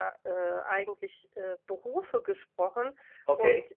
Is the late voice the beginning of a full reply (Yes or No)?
No